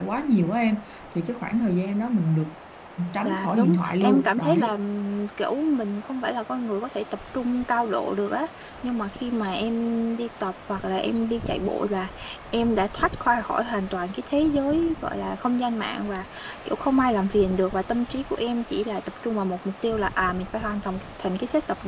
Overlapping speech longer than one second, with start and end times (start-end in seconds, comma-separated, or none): 3.2-4.7